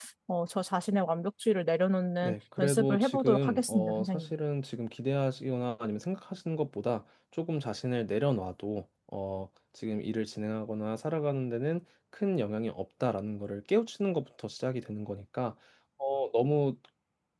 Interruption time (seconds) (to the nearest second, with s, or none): 2 s